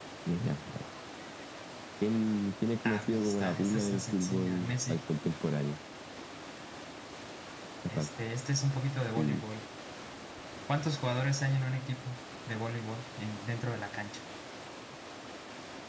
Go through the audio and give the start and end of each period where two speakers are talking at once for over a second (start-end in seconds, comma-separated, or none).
2.8-5.0